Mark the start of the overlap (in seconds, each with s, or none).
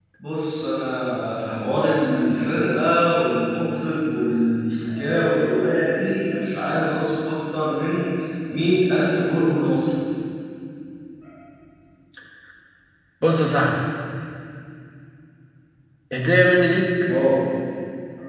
none